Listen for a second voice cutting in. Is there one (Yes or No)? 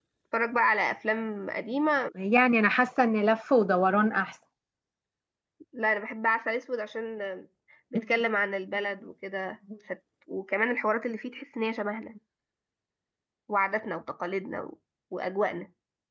No